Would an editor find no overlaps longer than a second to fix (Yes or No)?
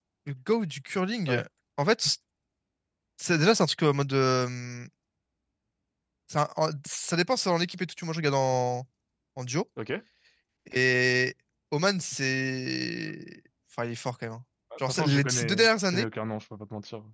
No